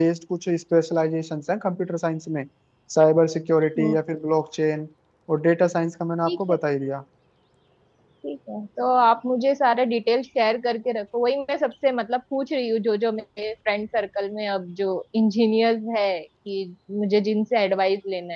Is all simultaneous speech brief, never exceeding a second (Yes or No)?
Yes